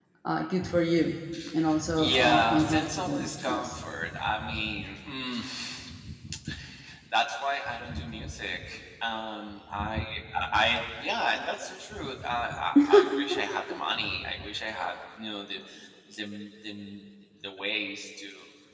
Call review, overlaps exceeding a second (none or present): present